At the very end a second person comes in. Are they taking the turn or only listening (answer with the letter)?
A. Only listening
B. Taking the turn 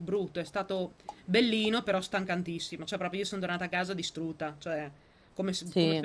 B